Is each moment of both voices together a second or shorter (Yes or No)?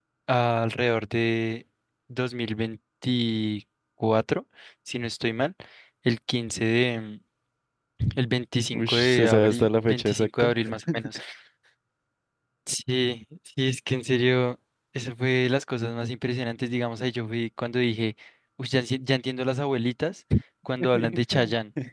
No